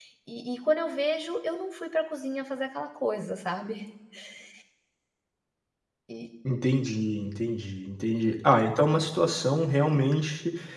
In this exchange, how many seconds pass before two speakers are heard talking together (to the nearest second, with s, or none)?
none